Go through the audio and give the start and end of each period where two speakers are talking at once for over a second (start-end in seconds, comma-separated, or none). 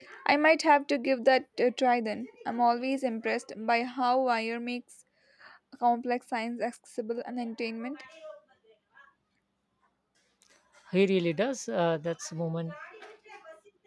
none